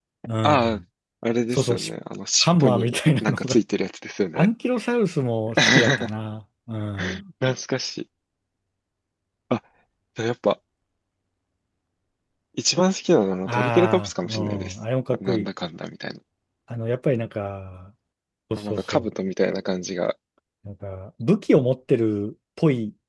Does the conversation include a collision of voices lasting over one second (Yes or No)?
Yes